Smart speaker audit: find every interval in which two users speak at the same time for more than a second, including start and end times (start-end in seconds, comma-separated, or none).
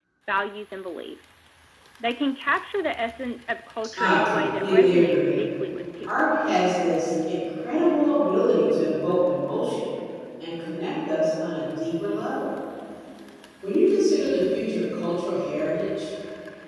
4.0-5.3